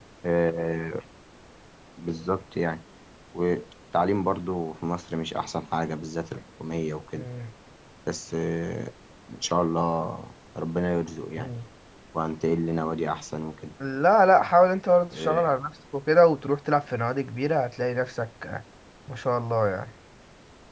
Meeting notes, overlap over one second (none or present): none